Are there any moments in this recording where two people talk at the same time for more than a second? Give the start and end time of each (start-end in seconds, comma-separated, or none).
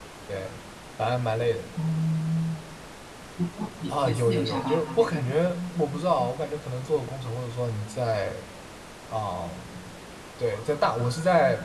3.9-5.2